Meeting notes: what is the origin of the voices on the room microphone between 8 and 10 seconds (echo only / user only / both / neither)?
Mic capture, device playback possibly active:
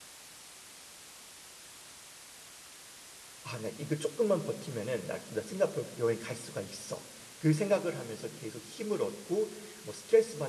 user only